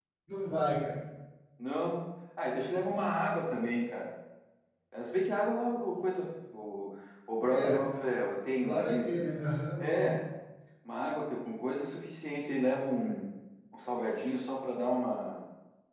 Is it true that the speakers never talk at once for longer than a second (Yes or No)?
Yes